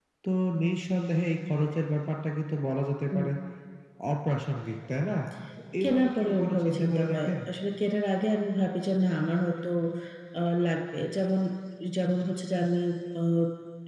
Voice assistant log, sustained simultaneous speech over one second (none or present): present